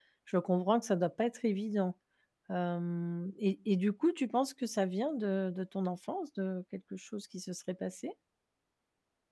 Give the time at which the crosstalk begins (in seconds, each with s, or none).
none